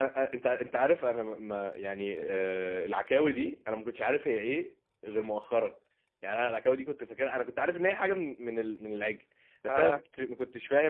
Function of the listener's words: listening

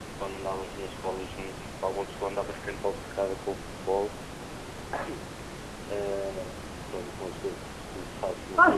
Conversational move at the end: taking over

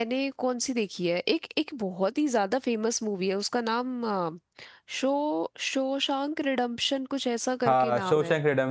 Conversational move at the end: taking over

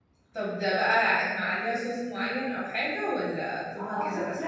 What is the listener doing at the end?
taking over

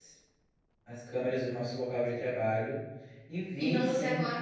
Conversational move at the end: taking over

